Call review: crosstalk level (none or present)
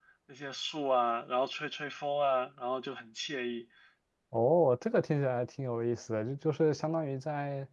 none